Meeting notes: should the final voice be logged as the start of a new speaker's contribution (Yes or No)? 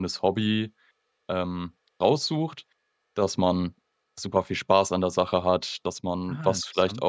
No